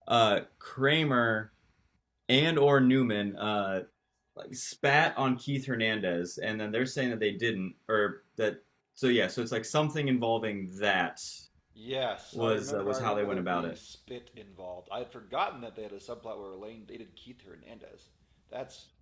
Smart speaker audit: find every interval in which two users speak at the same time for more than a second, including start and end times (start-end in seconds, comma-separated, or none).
12.3-13.8